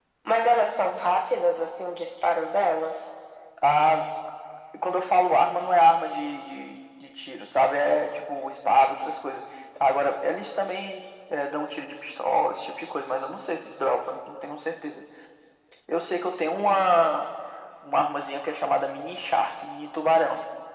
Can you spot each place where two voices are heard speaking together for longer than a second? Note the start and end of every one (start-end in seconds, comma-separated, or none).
none